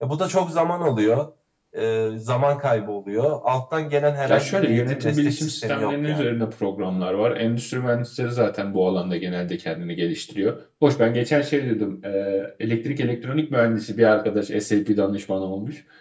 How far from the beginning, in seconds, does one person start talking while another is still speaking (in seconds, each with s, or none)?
4.3 s